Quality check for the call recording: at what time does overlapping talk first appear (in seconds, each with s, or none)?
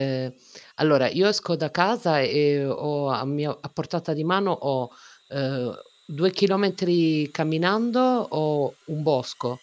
none